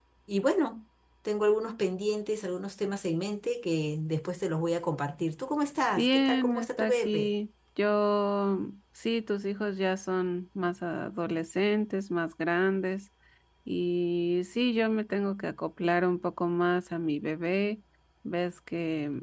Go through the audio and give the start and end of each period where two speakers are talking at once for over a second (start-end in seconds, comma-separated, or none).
6.0-7.3